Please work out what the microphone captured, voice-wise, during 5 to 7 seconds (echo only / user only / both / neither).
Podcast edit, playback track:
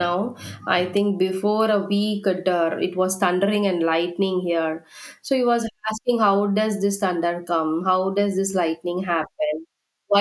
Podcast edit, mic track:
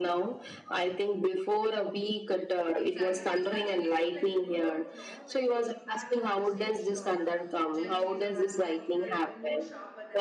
both